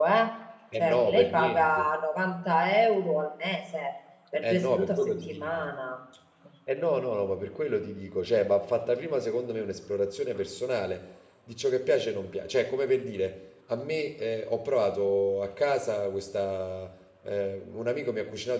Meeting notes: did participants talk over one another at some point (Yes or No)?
Yes